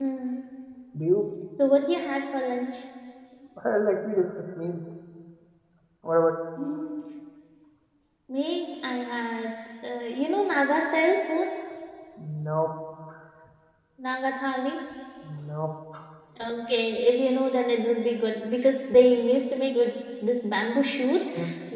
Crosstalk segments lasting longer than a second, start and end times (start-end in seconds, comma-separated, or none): none